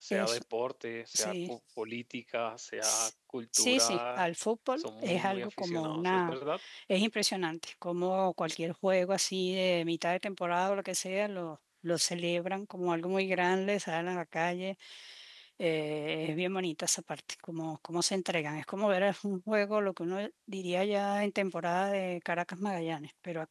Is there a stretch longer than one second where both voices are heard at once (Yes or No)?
Yes